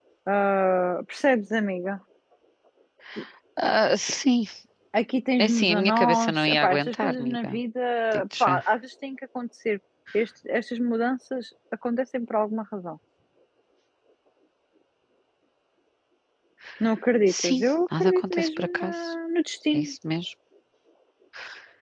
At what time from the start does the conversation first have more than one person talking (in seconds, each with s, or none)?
5.4 s